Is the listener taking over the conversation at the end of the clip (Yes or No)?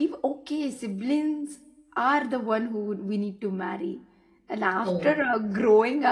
No